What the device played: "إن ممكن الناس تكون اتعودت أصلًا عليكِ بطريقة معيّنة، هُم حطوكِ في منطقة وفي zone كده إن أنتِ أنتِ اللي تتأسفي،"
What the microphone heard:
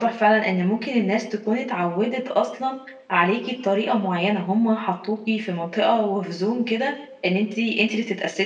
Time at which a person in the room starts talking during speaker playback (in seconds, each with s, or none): none